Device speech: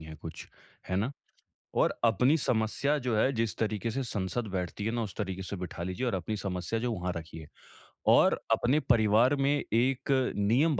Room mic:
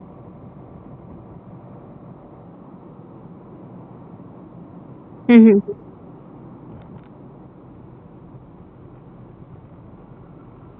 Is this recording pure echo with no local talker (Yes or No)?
No